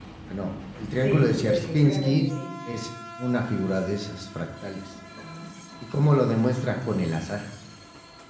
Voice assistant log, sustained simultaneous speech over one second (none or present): present